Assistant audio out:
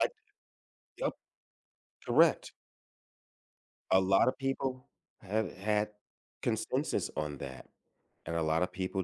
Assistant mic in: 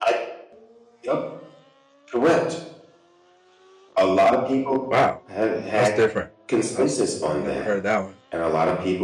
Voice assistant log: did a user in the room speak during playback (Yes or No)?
Yes